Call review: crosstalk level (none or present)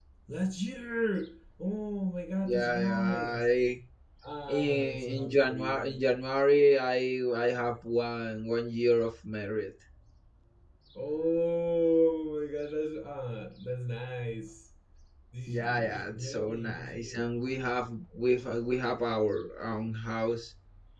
present